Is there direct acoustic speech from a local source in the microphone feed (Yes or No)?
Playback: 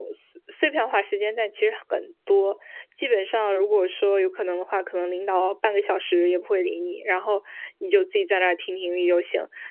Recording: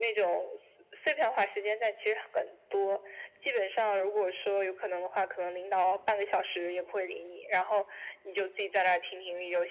No